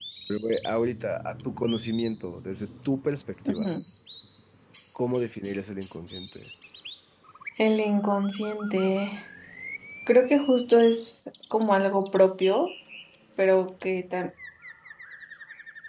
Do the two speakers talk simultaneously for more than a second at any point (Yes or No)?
No